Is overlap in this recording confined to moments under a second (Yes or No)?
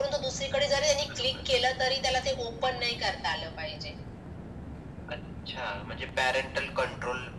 Yes